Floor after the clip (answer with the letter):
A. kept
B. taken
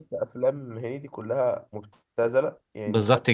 A